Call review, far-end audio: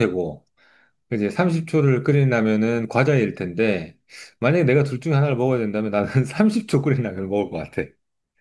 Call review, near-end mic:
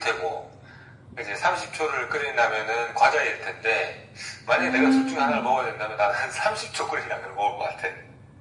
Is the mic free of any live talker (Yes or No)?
No